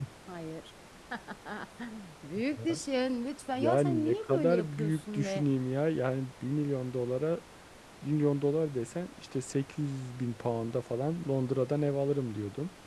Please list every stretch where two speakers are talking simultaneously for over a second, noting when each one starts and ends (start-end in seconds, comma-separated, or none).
3.5-5.5